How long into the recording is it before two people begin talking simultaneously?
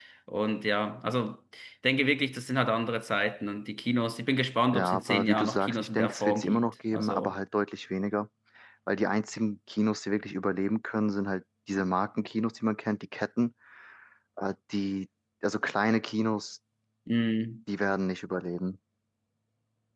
4.7 s

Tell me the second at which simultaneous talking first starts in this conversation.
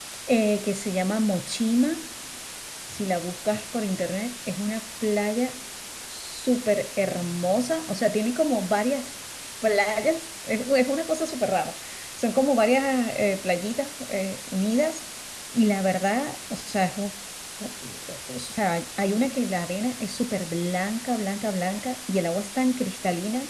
none

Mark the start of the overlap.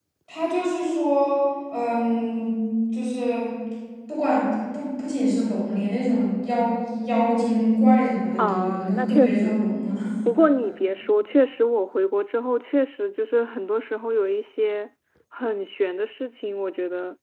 8.4 s

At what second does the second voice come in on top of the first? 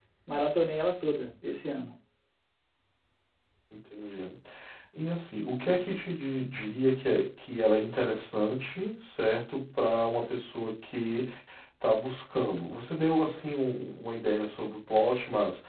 none

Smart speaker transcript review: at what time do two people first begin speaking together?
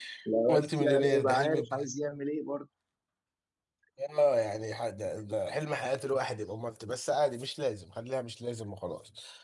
0.5 s

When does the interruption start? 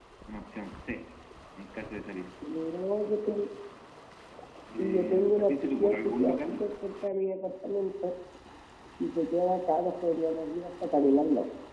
4.8 s

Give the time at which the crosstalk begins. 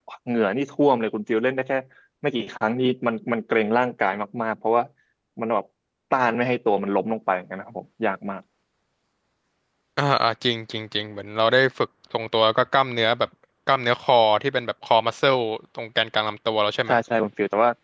none

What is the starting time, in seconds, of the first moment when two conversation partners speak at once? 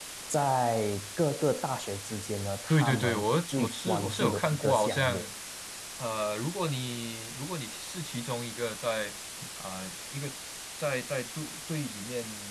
2.7 s

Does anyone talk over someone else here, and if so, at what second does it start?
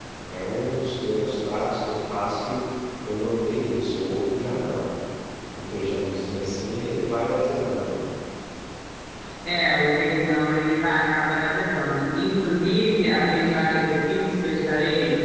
none

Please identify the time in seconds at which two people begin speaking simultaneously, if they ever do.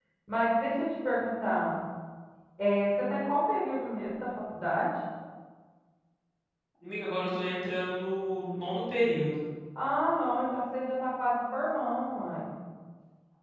none

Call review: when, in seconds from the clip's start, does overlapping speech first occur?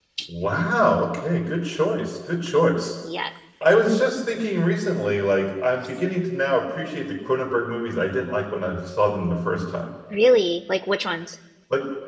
none

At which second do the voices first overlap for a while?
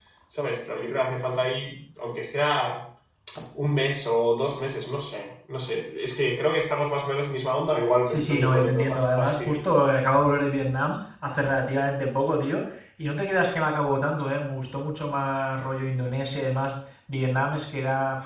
8.1 s

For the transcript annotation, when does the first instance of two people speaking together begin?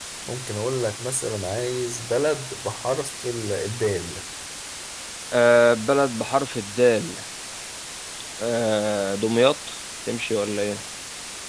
none

